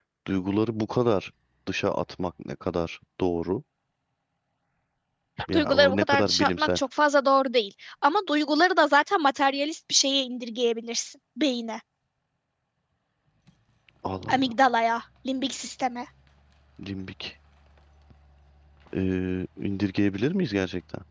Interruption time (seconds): 5.5 s

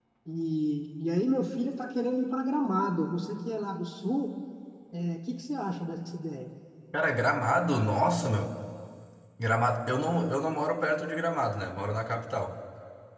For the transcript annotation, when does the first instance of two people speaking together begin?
none

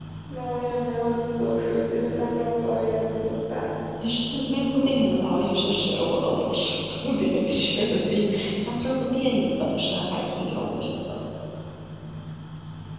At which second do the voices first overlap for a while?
none

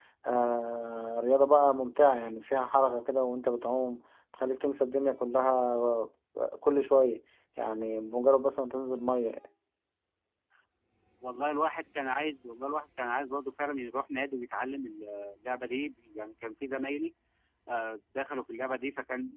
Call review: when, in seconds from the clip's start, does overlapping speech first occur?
none

